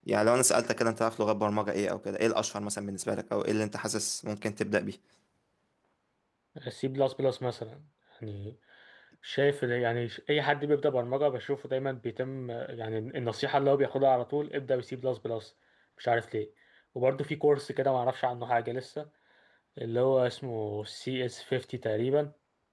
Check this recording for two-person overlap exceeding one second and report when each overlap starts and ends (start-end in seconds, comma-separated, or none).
none